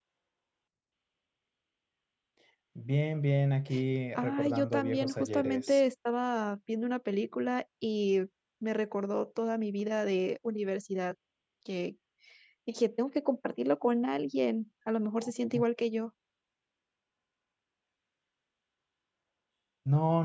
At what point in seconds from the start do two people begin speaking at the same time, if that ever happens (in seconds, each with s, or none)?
4.2 s